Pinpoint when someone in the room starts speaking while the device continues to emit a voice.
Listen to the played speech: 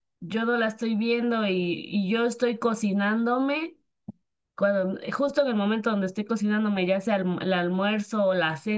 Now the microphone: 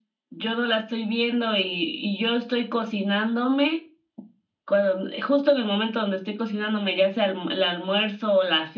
none

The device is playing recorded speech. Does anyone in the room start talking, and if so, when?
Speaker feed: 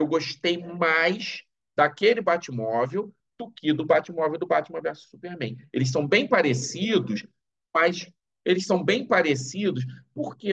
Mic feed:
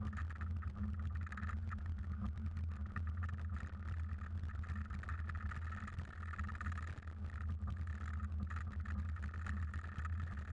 none

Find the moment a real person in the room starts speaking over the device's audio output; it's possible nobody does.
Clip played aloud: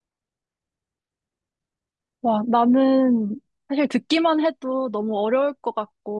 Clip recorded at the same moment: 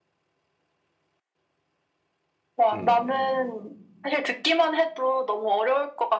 2.7 s

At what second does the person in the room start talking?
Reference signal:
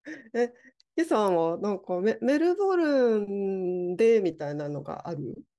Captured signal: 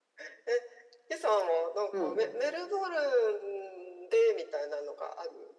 1.9 s

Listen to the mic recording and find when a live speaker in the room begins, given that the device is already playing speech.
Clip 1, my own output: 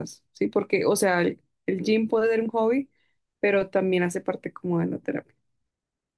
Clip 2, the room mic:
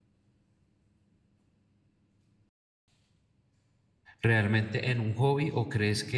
4.2 s

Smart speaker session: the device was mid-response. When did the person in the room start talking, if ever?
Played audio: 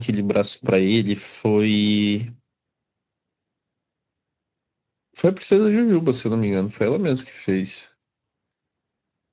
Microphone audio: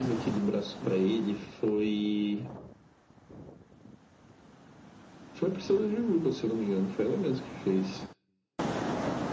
none

